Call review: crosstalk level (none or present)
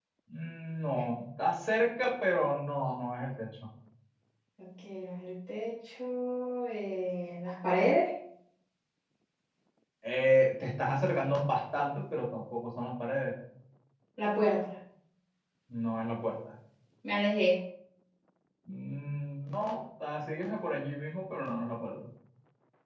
none